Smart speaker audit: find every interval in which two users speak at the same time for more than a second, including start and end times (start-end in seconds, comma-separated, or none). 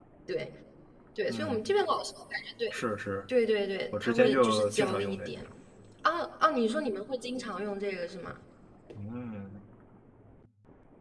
3.9-5.3